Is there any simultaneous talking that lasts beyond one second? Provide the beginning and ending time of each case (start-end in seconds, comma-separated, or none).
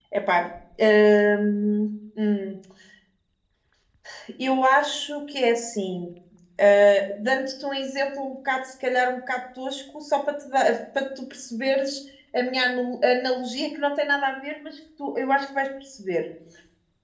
none